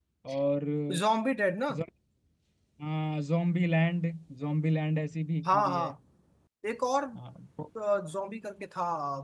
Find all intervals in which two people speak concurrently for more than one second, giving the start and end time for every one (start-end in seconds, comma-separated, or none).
none